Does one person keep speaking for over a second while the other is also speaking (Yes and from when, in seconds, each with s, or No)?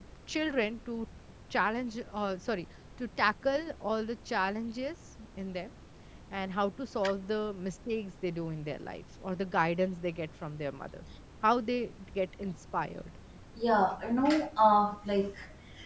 No